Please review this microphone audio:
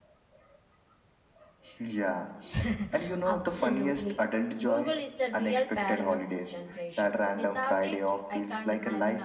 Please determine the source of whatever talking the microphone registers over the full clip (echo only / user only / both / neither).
both